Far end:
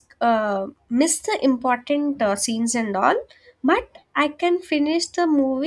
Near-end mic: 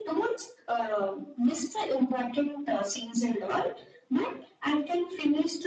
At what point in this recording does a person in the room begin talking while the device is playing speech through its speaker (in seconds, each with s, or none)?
none